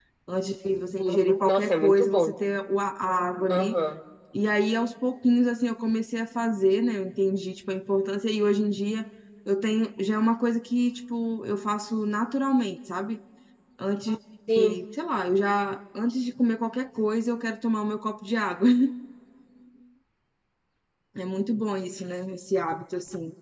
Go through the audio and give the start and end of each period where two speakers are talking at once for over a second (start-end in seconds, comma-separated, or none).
1.0-2.4